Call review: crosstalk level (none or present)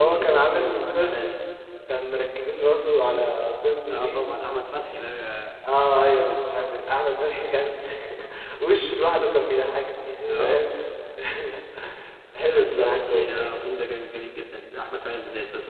present